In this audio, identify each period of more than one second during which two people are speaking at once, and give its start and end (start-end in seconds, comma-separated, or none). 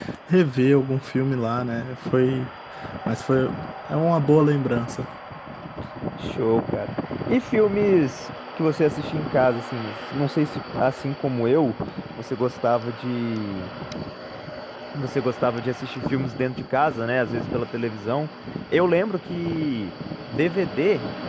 none